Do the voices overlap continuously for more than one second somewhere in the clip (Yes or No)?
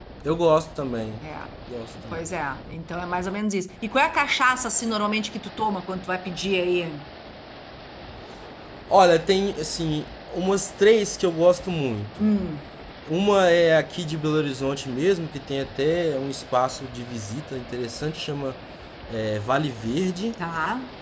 No